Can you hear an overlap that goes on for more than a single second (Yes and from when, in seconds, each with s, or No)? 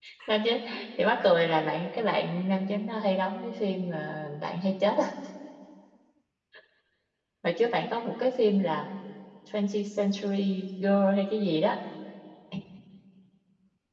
No